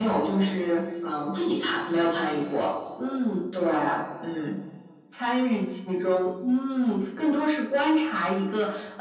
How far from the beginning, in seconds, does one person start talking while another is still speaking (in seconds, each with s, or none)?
none